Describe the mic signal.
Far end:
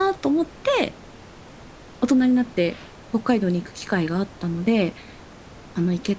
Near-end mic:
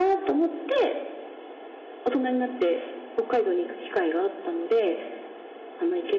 echo only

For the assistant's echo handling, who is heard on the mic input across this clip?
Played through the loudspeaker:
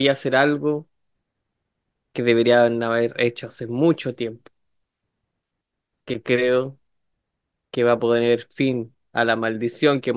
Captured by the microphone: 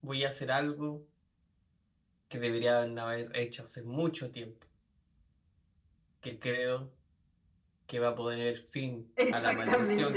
both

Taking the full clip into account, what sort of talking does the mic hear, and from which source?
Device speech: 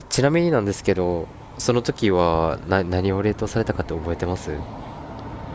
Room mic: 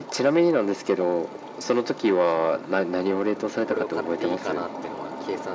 both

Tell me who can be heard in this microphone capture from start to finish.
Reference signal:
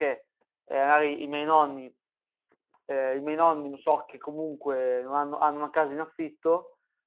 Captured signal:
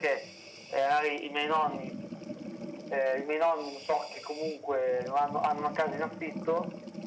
echo only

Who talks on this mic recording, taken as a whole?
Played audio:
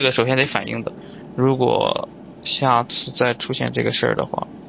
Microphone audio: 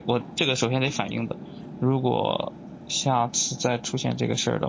echo only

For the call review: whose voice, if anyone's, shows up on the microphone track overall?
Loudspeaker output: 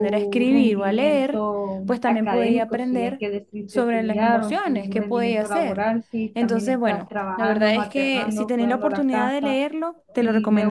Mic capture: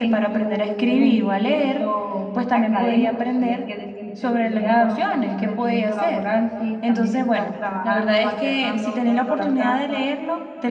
echo only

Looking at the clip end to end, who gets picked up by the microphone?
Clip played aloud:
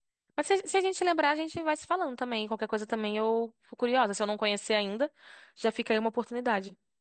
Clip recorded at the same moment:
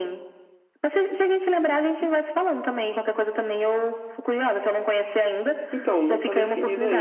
both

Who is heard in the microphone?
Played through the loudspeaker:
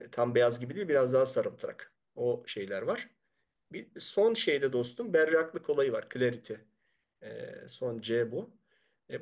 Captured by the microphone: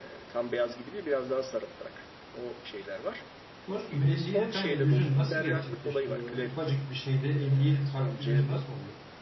both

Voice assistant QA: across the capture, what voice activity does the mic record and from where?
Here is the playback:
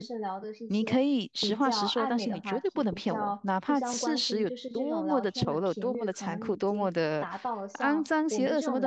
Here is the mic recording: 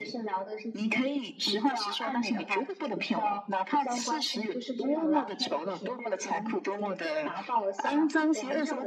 echo only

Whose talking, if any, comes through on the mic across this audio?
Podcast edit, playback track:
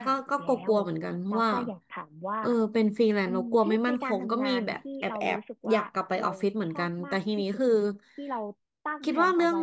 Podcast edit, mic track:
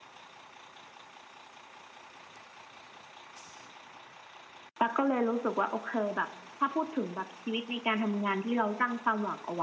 user only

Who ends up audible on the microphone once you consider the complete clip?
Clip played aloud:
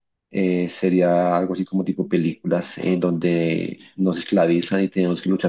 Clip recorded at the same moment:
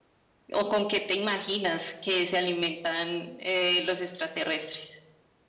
user only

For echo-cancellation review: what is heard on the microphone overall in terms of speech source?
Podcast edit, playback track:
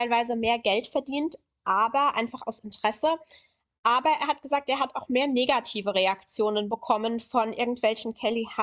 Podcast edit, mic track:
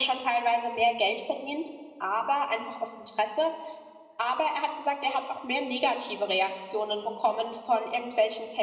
echo only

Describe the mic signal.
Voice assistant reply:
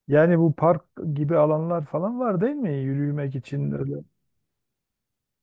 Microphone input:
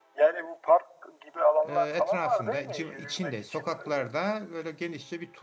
both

